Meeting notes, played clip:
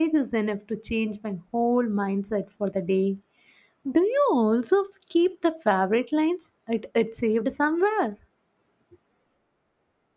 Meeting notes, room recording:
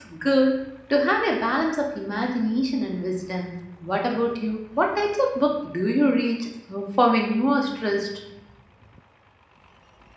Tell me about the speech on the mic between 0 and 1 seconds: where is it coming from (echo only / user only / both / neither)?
user only